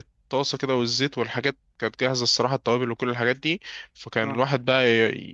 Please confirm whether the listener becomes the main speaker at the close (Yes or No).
No